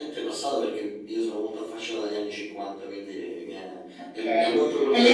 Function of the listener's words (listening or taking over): taking over